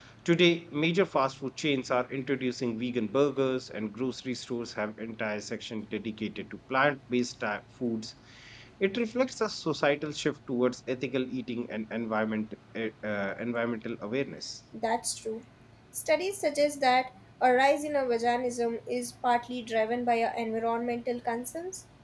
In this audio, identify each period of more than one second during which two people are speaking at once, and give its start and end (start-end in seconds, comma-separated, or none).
none